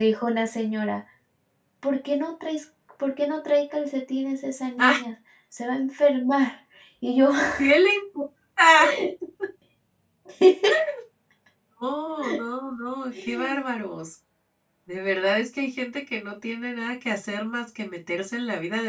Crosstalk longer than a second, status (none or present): none